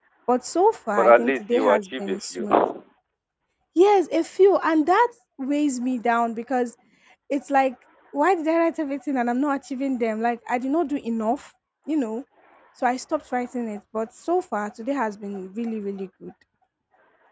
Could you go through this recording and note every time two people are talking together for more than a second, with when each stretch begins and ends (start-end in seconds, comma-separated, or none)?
0.9-2.5